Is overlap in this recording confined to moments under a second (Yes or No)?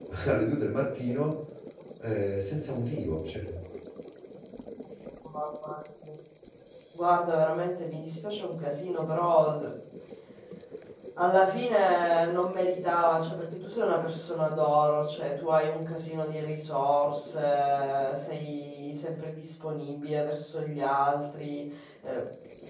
Yes